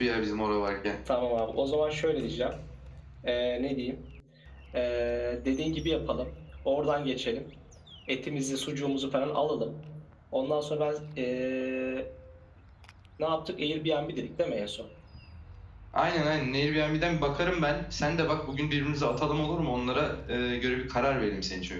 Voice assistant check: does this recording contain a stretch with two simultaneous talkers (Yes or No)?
No